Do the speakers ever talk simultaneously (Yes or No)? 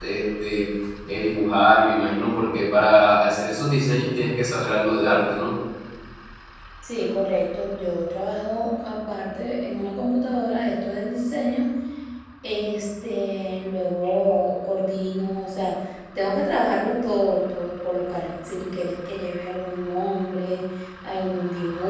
No